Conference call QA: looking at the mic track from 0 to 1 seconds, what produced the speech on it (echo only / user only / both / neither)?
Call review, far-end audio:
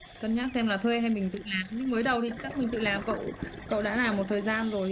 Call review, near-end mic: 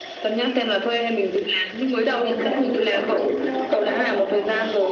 echo only